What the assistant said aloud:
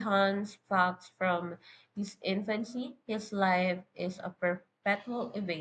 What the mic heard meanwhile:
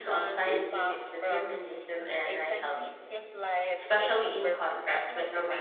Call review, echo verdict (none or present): present